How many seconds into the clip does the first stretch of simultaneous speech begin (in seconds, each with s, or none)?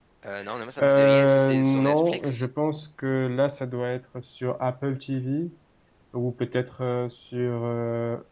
0.8 s